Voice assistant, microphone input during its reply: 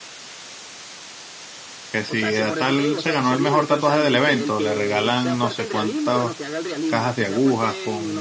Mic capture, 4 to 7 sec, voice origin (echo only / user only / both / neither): both